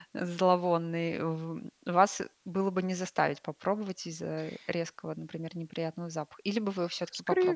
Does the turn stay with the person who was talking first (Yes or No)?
No